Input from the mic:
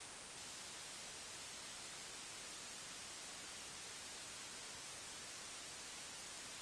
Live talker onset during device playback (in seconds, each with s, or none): none